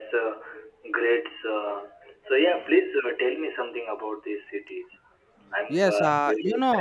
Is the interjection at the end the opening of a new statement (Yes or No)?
Yes